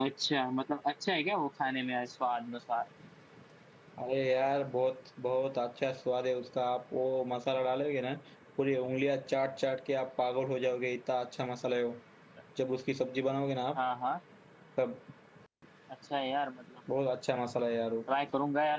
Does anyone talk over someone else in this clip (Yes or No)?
No